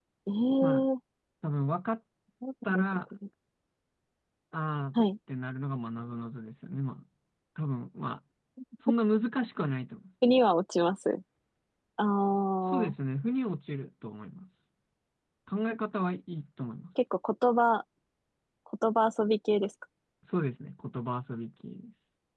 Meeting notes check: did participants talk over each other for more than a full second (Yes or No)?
No